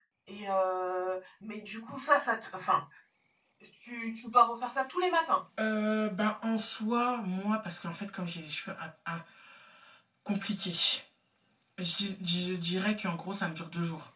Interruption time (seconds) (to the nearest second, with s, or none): none